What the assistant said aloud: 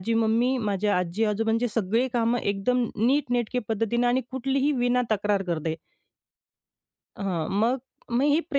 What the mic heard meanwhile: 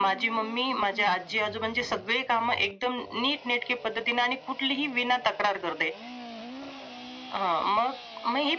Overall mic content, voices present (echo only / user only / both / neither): echo only